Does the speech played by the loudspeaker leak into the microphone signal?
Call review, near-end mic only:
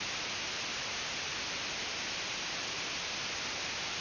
No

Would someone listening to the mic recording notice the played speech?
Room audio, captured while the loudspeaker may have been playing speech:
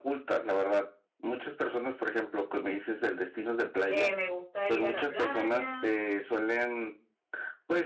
Yes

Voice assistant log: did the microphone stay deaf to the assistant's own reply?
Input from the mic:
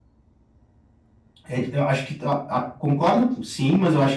Yes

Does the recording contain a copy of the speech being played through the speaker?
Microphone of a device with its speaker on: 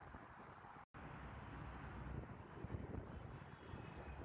No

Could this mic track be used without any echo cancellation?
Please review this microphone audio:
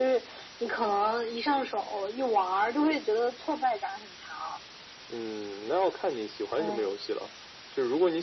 No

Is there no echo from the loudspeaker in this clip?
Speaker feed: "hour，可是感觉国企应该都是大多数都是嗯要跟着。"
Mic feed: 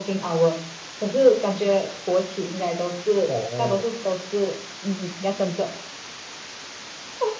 No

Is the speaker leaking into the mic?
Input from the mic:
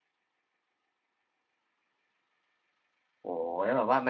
No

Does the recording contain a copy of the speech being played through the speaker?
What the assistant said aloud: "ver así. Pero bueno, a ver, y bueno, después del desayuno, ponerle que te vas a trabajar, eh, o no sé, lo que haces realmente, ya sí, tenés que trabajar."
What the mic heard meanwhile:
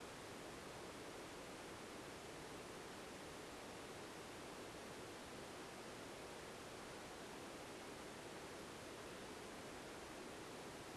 No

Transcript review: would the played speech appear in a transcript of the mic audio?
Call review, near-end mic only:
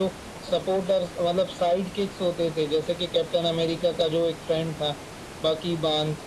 Yes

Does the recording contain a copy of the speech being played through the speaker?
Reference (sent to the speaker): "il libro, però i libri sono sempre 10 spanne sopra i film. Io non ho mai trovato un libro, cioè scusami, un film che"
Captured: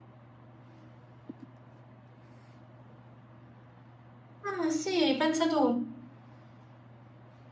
No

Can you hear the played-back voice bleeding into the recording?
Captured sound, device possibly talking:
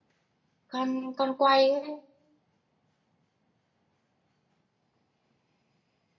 No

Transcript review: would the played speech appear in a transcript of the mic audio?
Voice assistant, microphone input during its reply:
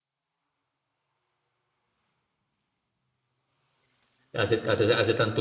No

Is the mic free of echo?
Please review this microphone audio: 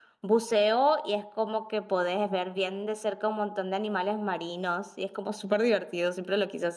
Yes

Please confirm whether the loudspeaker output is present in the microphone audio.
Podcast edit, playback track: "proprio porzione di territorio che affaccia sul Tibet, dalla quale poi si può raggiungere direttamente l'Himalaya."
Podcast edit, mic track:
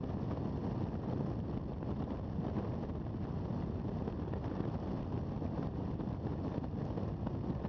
No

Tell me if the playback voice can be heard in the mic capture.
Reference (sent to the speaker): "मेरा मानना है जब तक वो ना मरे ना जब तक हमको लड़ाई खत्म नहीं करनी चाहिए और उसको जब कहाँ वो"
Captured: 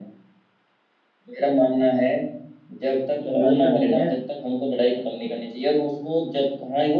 Yes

